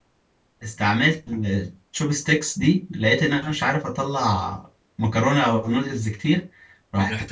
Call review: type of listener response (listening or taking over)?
listening